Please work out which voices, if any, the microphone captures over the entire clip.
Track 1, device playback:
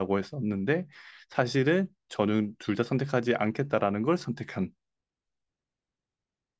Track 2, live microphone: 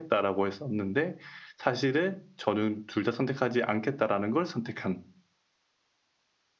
echo only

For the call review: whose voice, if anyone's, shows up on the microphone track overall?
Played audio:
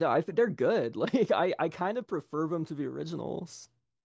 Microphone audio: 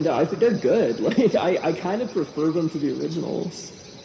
echo only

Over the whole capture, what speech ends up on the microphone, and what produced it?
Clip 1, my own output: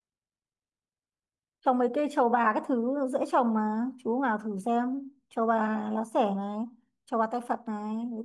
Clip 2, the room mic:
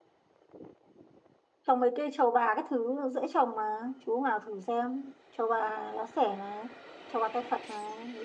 echo only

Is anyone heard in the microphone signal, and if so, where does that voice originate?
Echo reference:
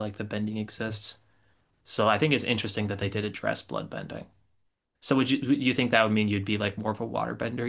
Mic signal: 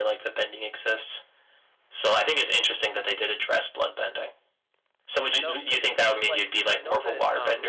both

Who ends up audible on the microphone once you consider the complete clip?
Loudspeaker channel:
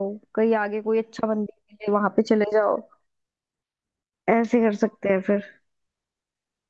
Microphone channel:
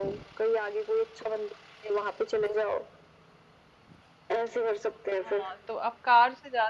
both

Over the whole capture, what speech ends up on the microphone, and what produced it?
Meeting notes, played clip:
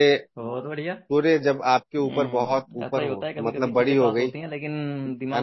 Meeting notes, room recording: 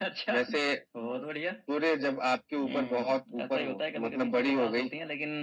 echo only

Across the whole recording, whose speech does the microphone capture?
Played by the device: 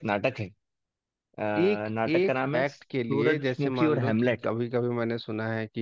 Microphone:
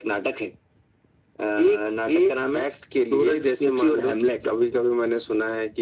echo only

